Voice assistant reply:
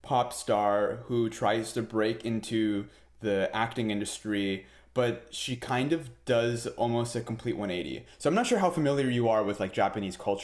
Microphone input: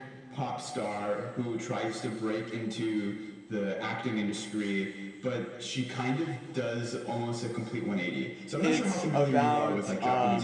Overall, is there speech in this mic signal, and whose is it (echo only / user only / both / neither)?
both